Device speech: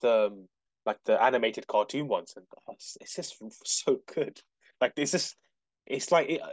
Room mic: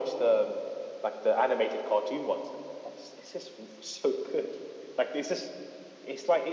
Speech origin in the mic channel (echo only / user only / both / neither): echo only